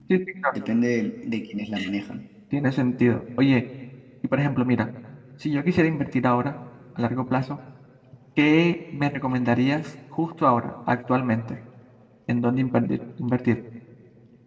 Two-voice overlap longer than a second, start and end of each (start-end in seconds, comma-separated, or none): none